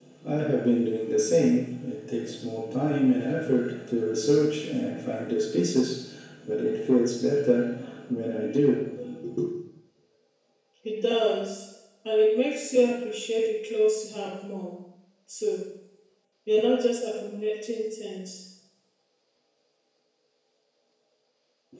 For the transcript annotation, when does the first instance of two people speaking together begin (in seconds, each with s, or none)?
none